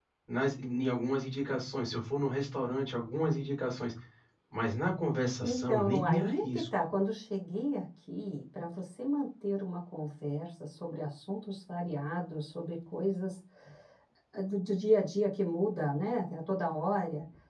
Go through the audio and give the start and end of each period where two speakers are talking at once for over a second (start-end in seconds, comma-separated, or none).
5.4-6.6